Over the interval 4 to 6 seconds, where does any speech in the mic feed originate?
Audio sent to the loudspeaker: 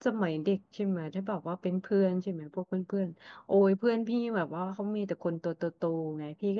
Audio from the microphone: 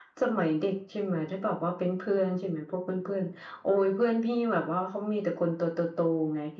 echo only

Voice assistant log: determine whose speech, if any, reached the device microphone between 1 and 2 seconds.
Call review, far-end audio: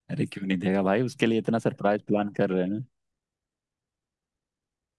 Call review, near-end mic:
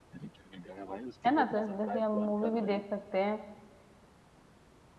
both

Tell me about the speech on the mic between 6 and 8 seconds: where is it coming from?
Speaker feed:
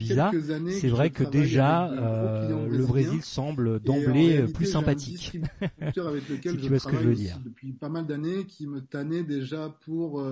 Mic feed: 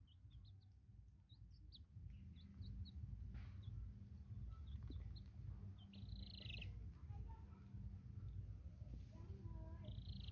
neither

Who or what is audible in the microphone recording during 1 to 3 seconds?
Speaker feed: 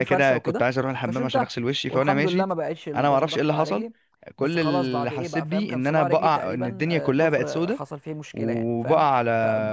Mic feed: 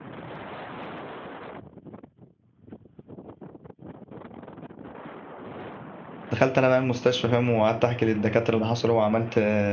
neither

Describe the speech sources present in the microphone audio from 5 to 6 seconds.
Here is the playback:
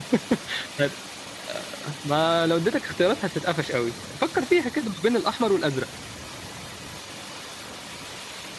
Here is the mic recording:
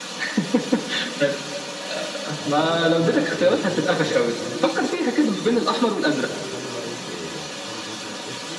both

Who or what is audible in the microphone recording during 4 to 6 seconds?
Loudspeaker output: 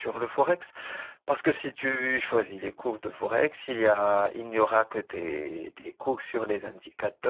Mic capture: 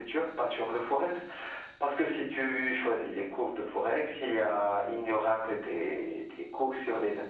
echo only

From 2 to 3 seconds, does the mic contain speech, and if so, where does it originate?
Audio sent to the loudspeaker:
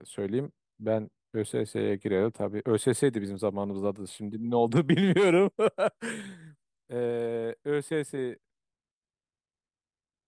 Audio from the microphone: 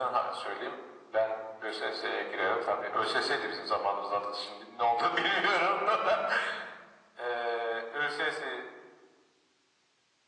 echo only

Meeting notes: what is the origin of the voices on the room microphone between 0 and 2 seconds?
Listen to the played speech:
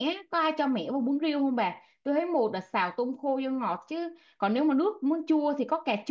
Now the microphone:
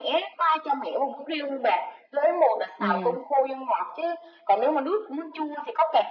echo only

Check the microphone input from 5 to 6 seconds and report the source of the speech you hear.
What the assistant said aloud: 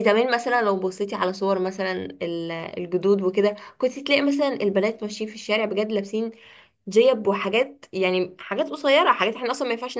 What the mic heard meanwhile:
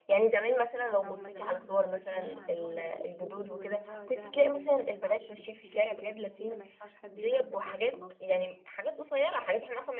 both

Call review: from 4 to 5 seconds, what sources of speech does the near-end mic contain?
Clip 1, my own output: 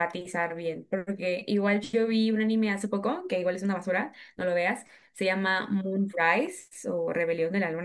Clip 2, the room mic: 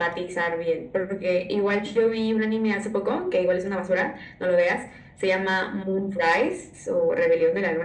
echo only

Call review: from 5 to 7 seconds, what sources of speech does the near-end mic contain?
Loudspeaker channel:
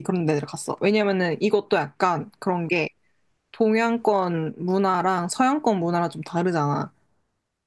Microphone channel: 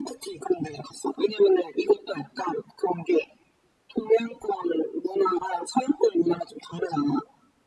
echo only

